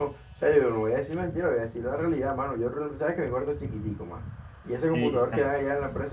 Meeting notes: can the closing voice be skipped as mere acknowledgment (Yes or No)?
Yes